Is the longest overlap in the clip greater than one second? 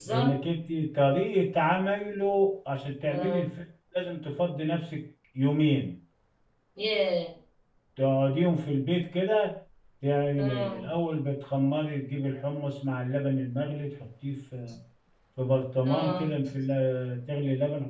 No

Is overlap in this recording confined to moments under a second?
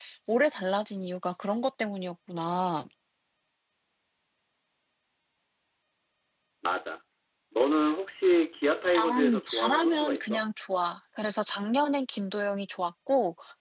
No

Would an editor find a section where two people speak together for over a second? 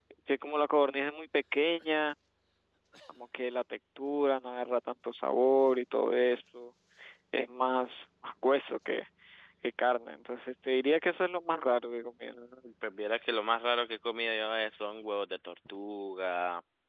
No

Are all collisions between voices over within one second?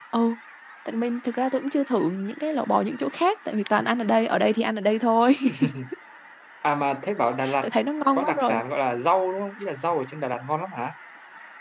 Yes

